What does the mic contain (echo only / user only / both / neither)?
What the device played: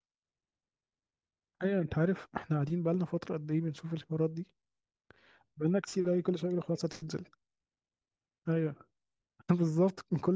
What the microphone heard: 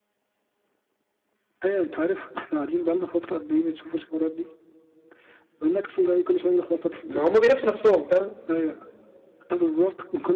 both